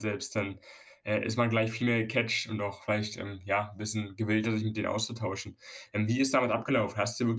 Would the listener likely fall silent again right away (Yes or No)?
Yes